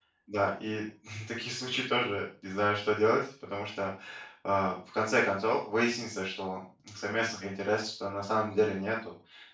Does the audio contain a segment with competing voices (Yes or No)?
No